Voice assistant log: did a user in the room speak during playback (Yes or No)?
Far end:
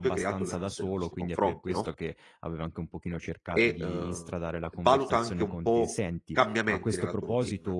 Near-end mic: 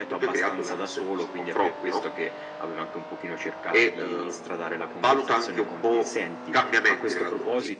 No